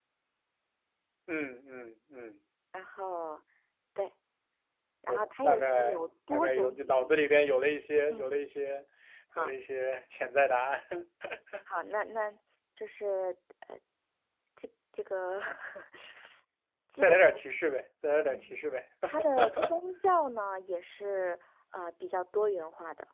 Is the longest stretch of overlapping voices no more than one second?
No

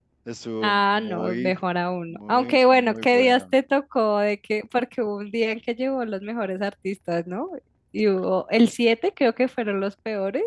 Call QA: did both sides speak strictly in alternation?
No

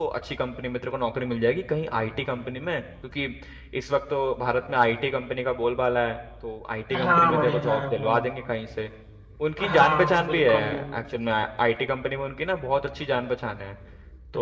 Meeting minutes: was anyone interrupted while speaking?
Yes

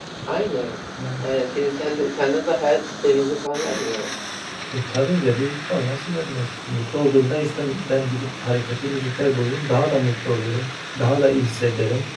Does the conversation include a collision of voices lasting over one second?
No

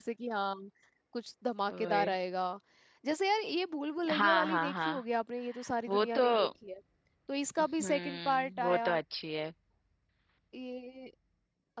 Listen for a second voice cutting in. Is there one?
Yes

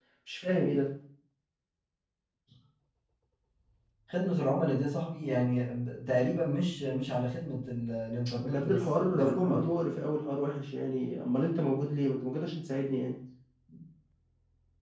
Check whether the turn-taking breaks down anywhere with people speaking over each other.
Yes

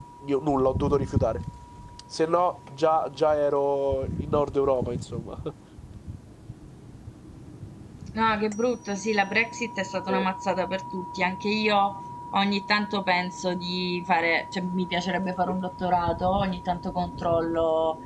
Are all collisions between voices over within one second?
Yes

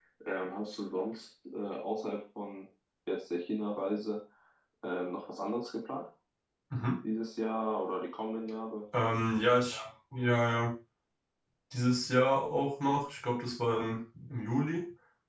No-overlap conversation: Yes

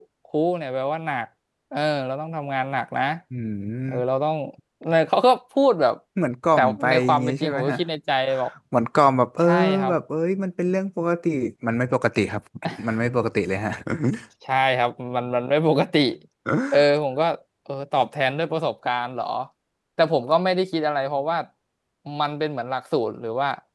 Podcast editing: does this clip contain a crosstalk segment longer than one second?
Yes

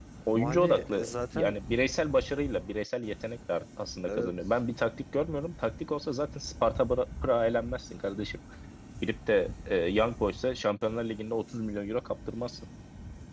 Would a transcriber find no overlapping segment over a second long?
No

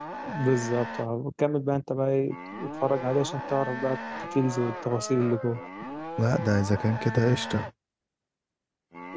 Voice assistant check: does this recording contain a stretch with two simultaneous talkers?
No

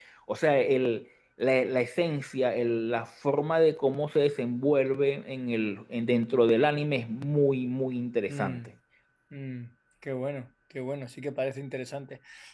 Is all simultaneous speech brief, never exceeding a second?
Yes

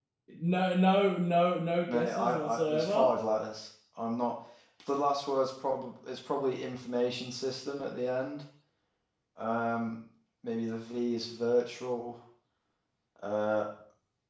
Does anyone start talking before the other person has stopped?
Yes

